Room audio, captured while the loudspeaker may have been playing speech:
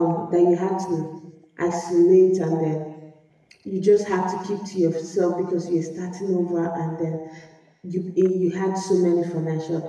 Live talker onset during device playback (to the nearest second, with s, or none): none